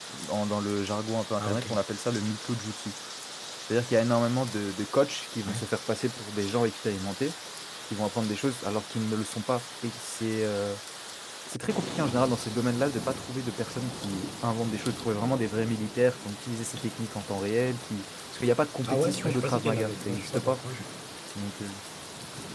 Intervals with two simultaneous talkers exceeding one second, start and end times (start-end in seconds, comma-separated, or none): 18.9-20.6